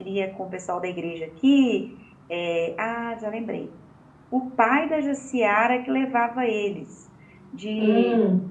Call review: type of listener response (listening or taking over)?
listening